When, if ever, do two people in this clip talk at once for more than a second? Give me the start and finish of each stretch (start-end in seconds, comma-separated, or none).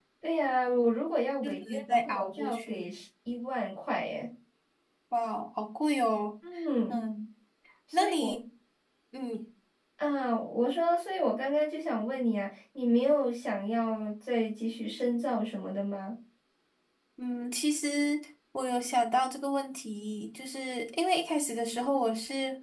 1.4-2.9